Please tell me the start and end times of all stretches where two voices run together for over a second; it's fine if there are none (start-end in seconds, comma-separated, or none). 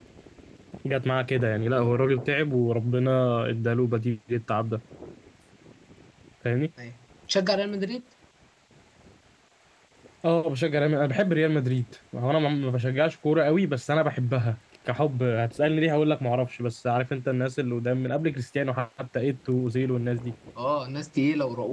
none